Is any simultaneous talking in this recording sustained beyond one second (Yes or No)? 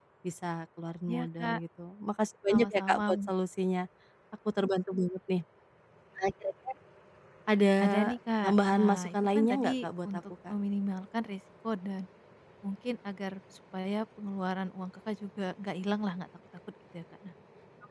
Yes